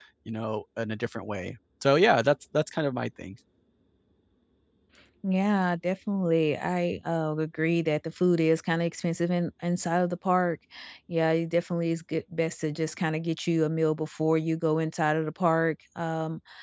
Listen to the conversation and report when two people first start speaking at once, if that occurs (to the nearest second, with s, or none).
none